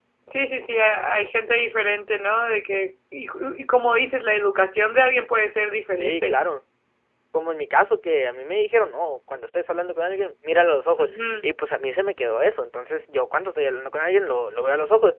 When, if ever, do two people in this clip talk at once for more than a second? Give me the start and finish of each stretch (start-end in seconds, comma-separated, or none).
none